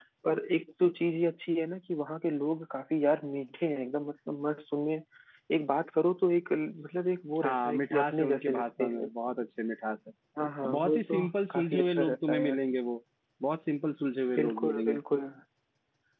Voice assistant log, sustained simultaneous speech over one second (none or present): present